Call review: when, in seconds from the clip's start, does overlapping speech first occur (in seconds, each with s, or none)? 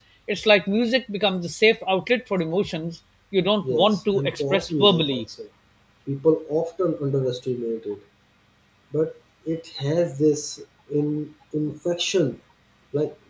3.6 s